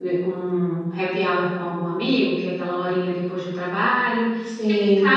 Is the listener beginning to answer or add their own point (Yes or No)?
No